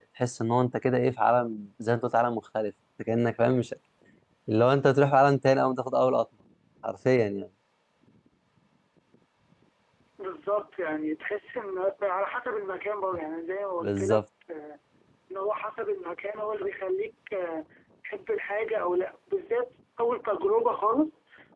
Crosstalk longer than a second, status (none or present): none